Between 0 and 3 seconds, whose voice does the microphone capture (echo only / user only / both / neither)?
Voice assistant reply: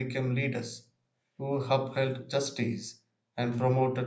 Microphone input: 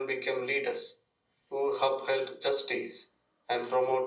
echo only